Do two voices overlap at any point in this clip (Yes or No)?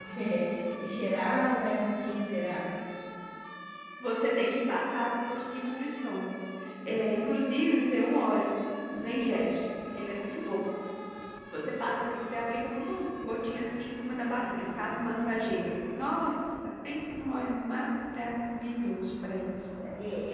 No